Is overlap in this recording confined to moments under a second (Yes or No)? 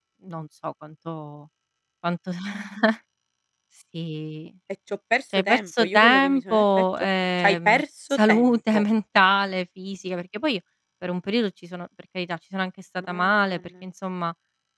No